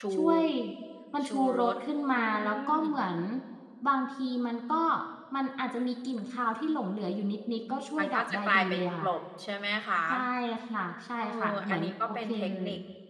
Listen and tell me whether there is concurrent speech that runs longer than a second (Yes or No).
Yes